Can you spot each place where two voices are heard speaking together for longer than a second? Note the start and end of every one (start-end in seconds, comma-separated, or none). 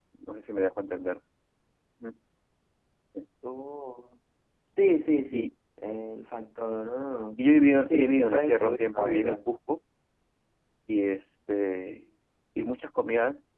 7.9-9.4